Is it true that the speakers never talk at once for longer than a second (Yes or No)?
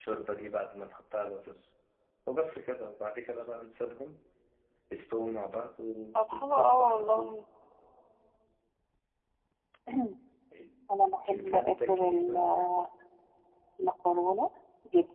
No